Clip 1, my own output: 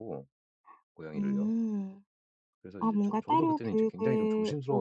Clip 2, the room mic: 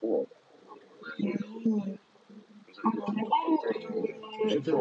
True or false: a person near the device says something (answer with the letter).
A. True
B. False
A